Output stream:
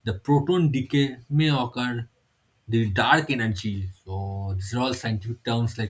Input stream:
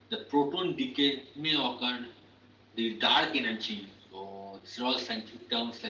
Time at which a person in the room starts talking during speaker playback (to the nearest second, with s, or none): none